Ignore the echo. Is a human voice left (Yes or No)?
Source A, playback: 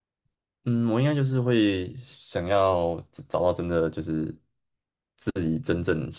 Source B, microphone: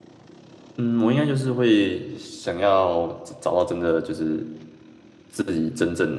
No